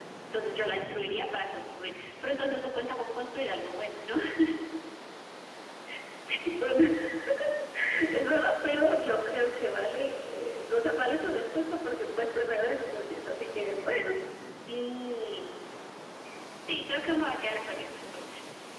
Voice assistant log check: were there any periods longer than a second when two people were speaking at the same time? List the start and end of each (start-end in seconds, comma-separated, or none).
none